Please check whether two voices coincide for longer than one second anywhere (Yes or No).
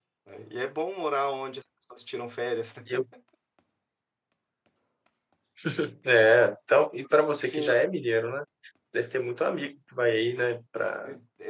No